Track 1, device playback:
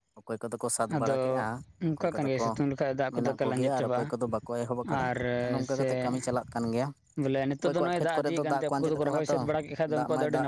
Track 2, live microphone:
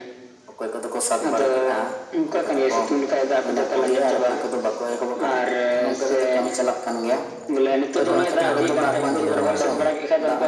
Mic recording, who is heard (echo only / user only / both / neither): both